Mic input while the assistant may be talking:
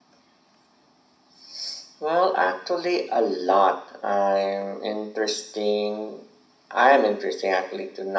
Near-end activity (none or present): none